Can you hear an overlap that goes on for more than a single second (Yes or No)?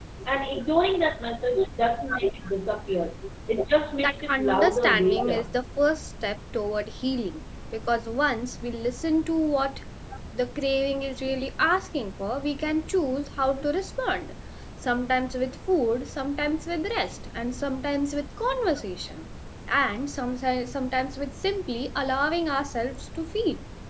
Yes